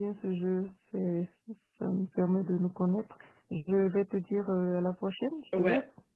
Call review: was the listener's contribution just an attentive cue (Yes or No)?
No